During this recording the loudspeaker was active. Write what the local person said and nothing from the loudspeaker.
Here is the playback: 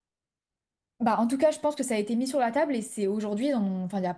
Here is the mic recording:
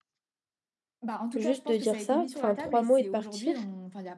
juste de dire ça, enfin, trois mots et de partir,

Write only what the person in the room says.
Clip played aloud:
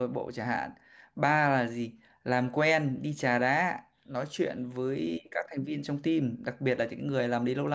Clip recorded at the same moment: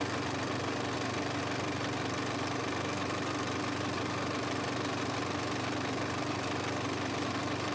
none

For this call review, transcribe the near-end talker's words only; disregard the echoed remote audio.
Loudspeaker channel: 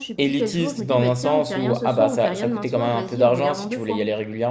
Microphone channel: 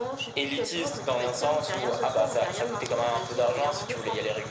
none

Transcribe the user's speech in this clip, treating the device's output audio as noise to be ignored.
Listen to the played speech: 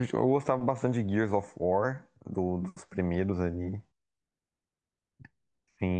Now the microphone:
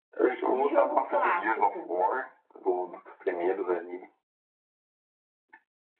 de jogo clássico,

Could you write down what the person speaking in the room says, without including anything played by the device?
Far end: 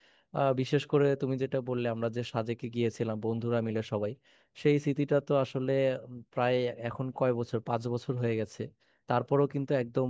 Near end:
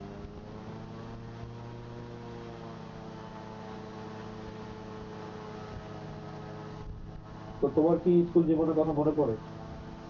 তো তোমার কি স্কুল জীবনের কথা মনে পড়ে

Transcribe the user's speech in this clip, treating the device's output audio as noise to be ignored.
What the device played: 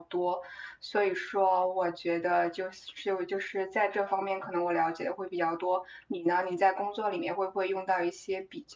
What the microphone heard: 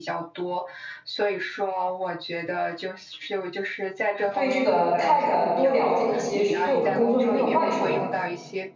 对这个 tech 多了解一些，对我们工作是没有坏处的。

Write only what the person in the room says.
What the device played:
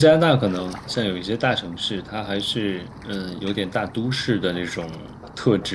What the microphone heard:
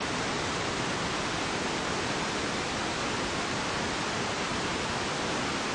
none

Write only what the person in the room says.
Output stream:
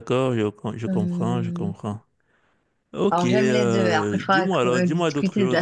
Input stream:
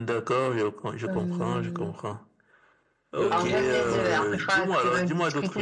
euh, les thés sont bien.

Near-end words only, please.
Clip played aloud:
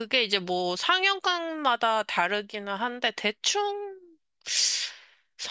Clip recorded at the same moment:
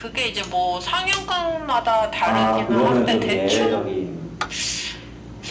아, 그거는 좀 예외적인,

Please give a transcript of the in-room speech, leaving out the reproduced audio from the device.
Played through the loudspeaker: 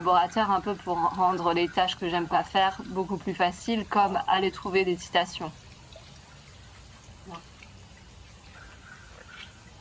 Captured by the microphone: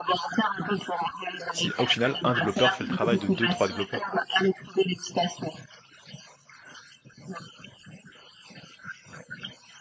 si au final, un développeur fait le travail de deux, trois développeurs?

